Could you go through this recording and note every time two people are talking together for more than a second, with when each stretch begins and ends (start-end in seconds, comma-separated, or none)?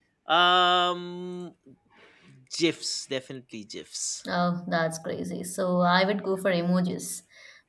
none